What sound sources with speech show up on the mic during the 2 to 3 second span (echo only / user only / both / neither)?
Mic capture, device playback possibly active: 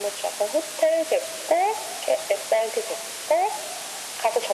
echo only